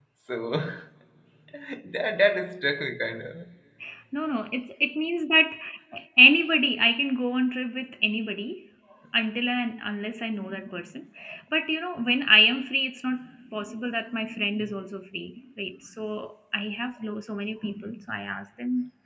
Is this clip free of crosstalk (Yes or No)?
Yes